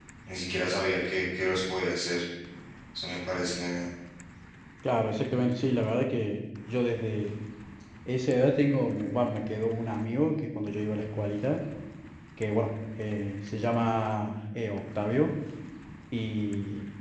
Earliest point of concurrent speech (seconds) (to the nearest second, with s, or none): none